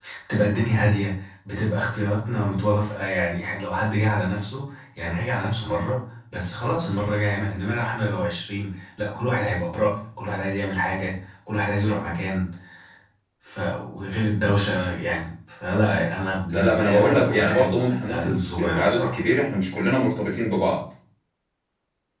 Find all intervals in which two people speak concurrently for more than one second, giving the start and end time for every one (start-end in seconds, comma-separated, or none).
16.5-19.2